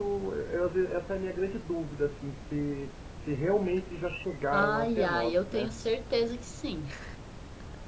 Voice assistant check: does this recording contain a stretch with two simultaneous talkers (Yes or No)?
Yes